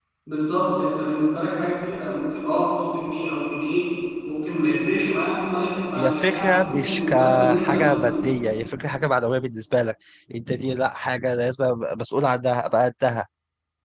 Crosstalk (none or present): present